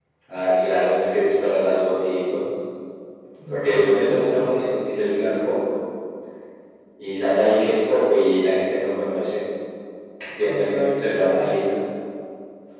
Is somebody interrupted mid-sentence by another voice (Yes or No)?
Yes